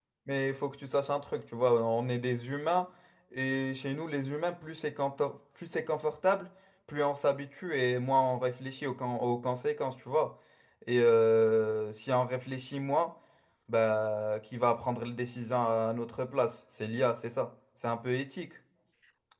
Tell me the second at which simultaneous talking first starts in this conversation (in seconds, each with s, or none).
none